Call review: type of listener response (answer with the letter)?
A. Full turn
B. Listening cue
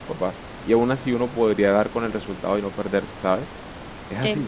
A